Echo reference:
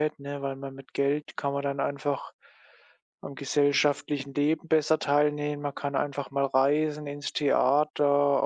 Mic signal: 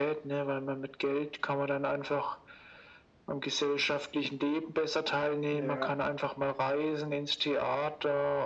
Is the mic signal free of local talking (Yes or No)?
No